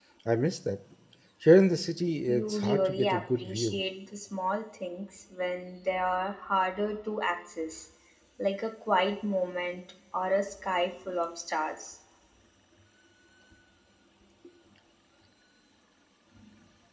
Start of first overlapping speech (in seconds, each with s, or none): 2.3 s